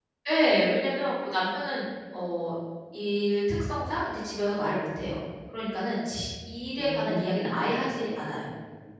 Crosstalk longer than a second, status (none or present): present